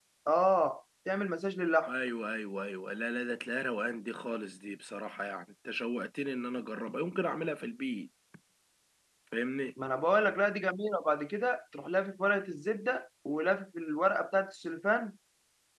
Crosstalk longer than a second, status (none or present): none